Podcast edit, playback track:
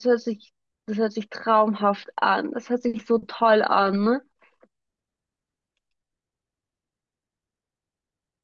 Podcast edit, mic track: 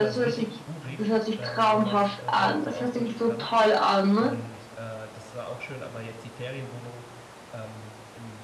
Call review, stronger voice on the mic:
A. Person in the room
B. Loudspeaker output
B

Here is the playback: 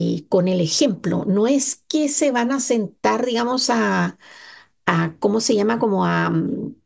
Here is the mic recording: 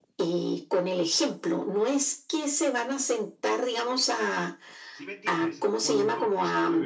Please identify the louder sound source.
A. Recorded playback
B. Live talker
A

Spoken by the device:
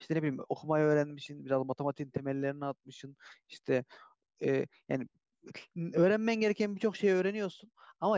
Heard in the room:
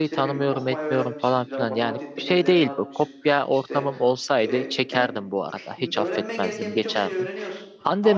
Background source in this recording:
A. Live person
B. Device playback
B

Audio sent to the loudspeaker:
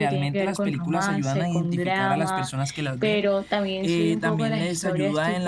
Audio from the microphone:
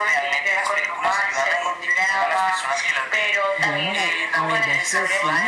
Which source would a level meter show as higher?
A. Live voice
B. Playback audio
B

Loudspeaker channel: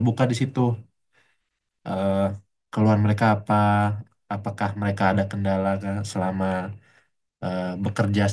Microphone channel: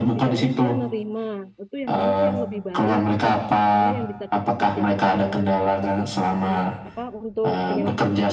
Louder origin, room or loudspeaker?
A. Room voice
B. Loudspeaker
B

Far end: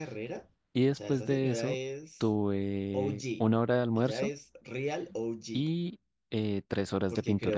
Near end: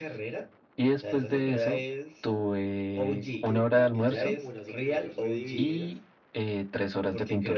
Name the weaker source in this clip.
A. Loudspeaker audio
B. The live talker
B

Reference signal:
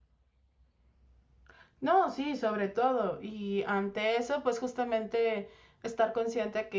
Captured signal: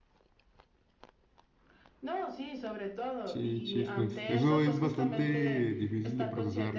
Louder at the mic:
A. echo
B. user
B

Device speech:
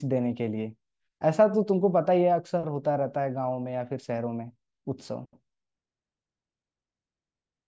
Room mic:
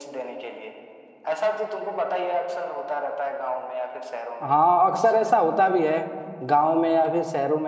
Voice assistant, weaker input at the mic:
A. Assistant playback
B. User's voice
A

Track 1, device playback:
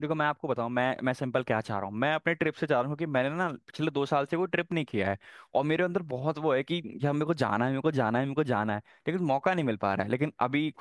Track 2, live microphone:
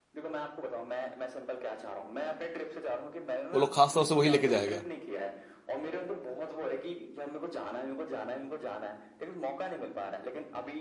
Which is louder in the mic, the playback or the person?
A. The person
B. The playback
A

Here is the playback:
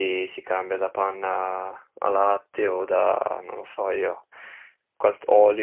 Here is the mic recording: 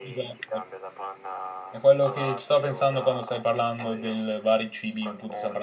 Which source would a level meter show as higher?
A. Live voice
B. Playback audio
A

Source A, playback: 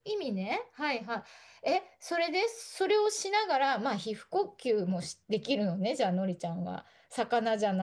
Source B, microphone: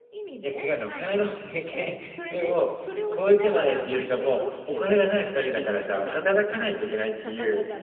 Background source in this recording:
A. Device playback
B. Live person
A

